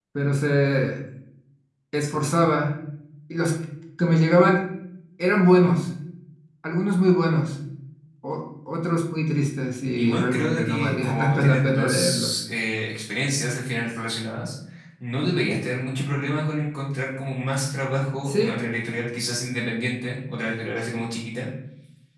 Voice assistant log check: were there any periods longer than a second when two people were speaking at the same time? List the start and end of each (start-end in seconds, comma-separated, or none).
10.0-12.3